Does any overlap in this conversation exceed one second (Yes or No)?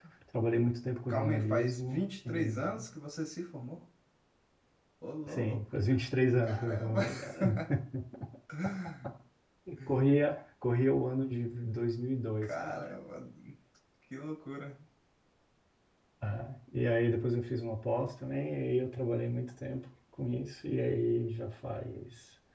Yes